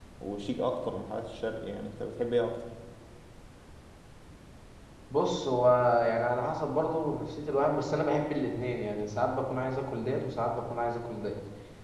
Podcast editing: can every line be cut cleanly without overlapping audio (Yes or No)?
Yes